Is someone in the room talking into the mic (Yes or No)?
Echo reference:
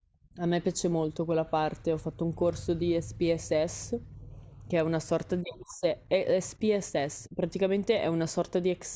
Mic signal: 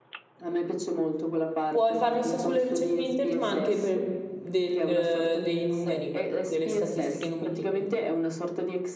Yes